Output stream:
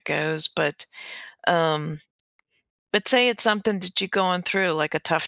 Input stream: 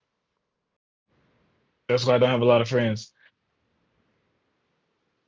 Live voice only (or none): That's why I don't have a lot of friends,